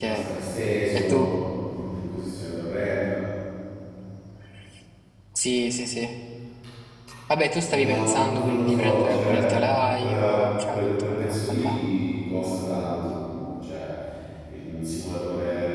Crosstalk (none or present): present